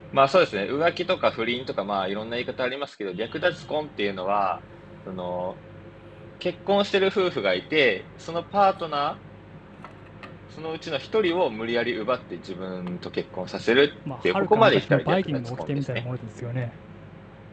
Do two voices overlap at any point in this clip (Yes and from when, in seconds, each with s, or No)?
Yes, from 14.1 s